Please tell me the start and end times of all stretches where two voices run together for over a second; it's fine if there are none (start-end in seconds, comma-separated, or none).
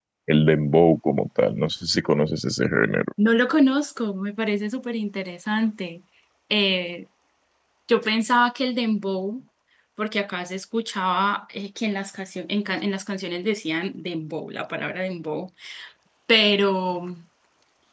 none